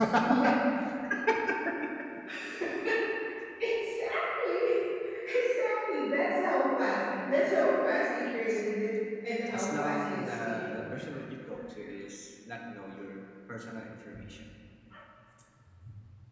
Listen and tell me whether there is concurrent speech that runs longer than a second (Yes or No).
Yes